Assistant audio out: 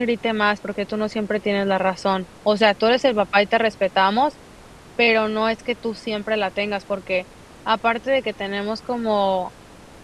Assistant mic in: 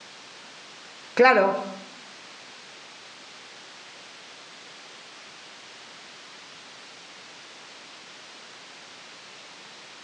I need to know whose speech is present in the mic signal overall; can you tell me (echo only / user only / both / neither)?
user only